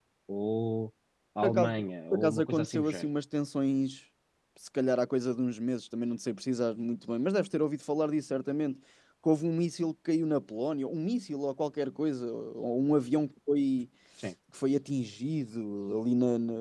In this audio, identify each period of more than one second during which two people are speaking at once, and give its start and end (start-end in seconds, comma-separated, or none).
1.4-3.1